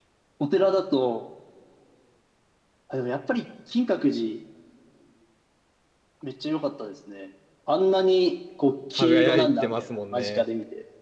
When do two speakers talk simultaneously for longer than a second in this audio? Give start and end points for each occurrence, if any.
9.0-10.4

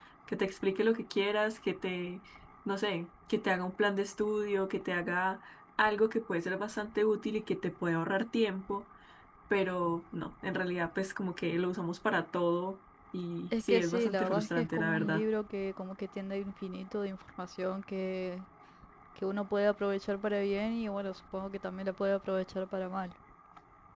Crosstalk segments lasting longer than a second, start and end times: 13.6-15.3

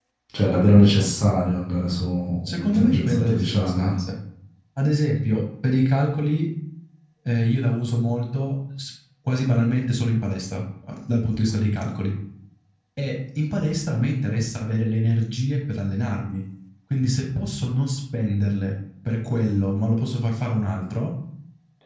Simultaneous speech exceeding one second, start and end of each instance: 2.5-3.9

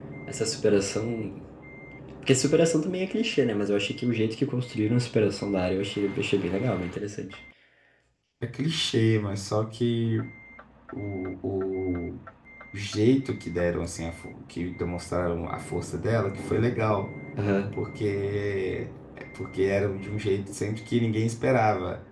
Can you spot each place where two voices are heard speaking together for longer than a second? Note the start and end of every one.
none

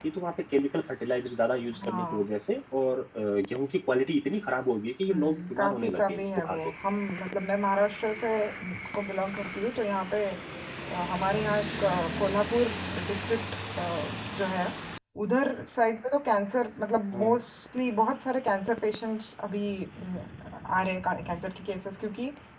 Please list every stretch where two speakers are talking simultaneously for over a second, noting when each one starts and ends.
5.1-6.6

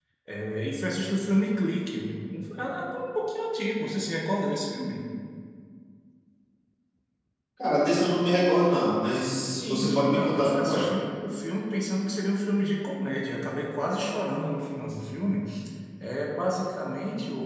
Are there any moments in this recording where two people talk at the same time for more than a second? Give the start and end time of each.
9.6-10.8

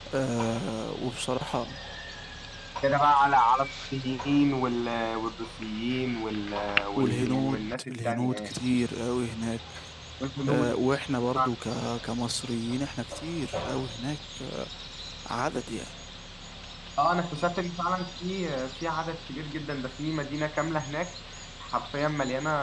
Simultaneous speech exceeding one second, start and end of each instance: 7.0-8.5

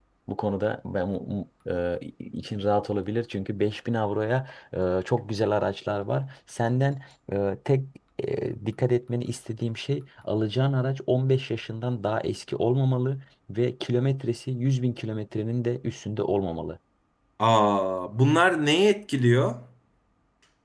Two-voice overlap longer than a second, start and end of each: none

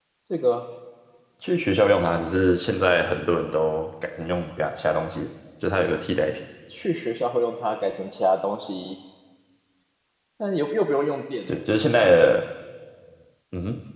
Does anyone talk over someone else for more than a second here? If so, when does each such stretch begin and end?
none

